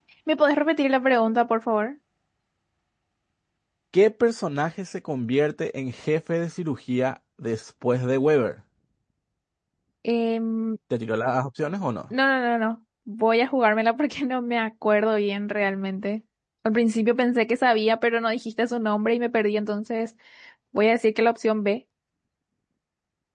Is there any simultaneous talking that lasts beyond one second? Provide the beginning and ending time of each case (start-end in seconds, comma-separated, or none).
none